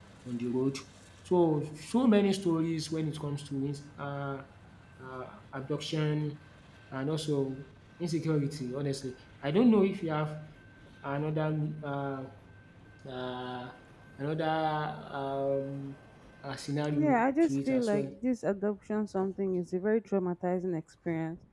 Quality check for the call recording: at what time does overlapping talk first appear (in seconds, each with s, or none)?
16.9 s